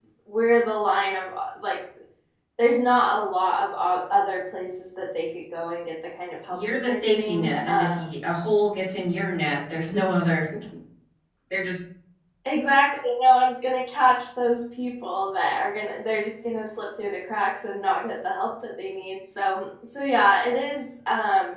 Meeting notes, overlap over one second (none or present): present